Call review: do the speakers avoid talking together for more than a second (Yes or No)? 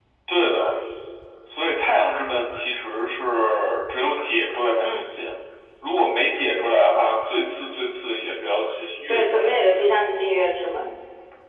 Yes